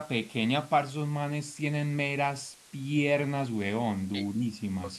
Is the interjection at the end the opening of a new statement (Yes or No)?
Yes